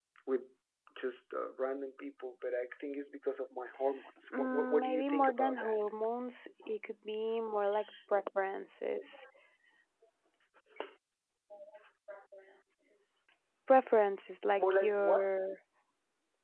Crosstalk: present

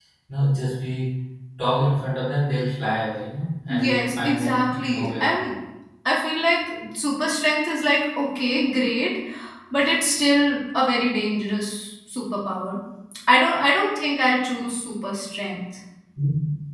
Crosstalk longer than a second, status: present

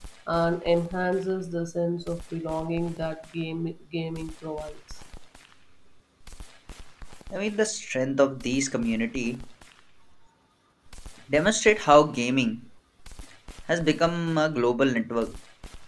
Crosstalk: none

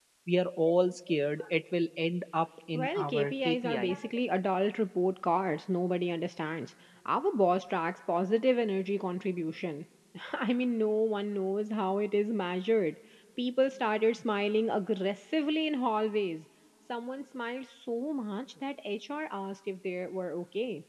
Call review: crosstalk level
present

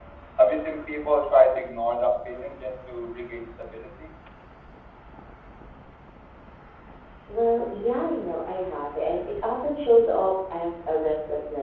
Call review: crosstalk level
none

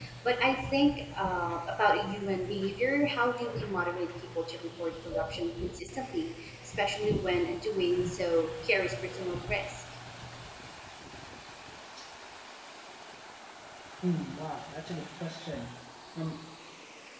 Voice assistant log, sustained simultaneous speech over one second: none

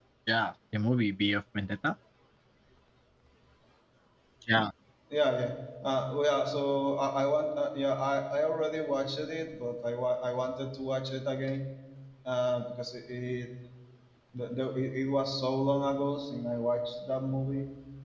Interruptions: none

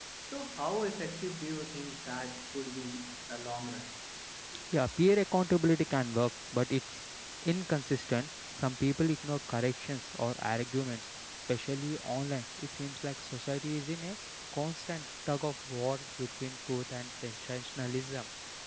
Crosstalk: none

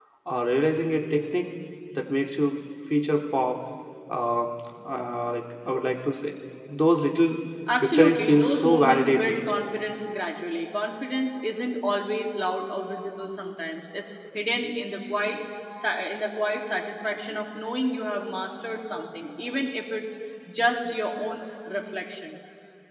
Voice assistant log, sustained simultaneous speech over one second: present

